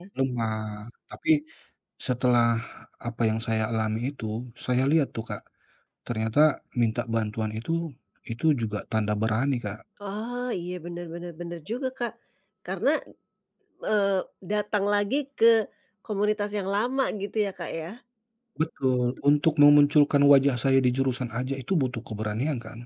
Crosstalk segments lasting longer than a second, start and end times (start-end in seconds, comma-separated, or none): none